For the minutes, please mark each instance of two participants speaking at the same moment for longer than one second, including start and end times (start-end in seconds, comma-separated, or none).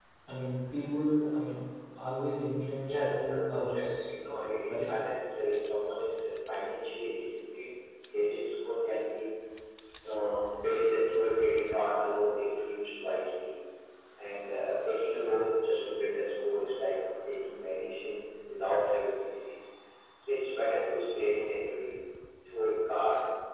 2.8-4.1